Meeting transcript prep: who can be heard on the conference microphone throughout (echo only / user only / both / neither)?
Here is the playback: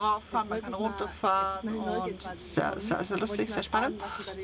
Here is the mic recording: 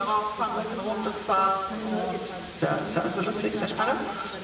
echo only